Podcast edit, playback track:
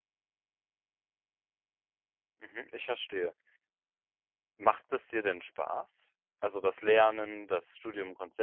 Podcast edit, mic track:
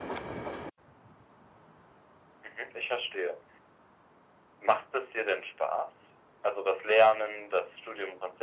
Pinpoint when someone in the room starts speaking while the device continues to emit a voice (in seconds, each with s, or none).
none